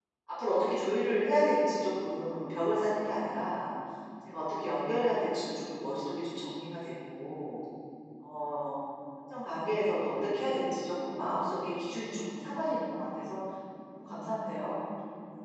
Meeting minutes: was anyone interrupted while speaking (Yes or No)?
No